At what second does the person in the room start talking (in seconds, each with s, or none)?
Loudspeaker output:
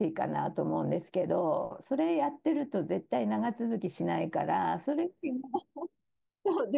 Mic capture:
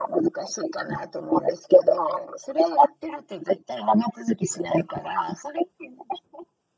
none